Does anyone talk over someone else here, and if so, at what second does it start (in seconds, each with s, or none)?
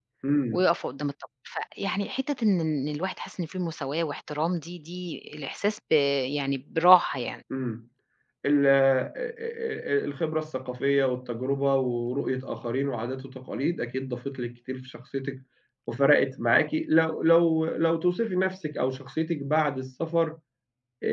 none